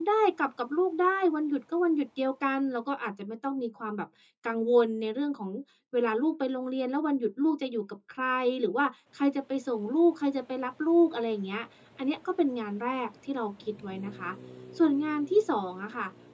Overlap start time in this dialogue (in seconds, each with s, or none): none